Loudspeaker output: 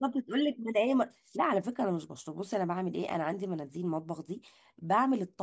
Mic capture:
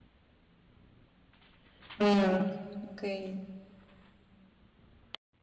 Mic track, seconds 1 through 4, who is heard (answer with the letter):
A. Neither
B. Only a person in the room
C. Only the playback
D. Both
B